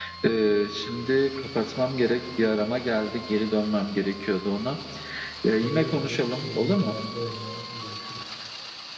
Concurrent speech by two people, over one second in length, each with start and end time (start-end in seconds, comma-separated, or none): 5.6-7.0